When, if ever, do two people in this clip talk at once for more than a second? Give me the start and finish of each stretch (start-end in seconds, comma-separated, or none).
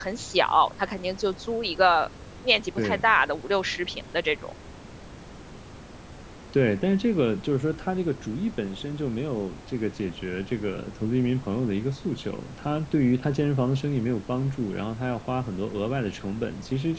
none